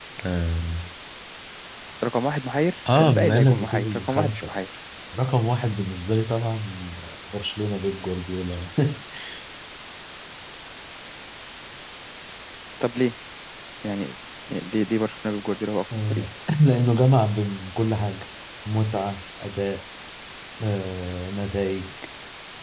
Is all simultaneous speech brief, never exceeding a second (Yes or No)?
No